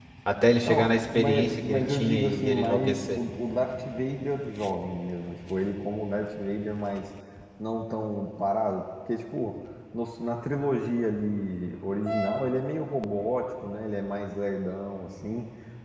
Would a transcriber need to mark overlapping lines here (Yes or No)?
Yes